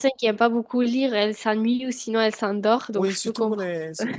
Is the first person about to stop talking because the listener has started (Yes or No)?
Yes